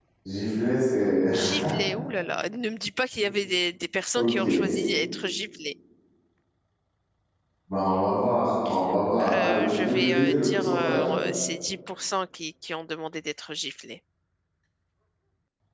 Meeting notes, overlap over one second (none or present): present